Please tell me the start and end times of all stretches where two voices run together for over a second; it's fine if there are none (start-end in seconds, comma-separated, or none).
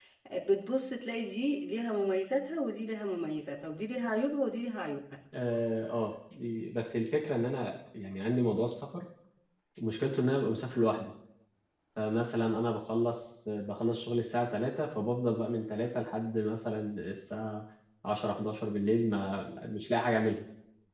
none